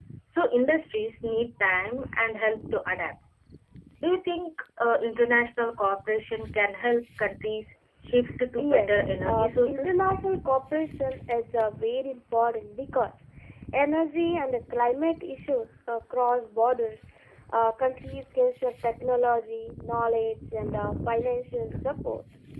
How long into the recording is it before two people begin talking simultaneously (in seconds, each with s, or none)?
8.6 s